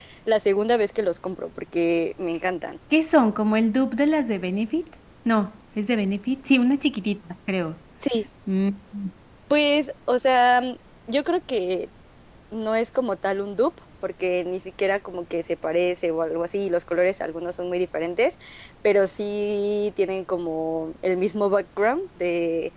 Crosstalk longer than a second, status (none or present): none